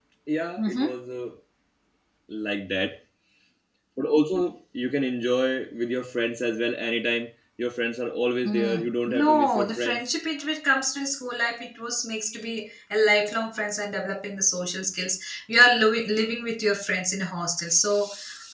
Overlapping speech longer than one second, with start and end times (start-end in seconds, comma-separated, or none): 8.4-10.0